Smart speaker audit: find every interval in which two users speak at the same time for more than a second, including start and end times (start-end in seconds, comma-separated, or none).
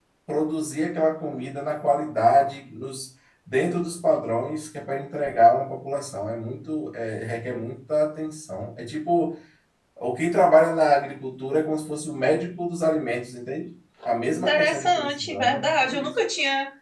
14.3-16.1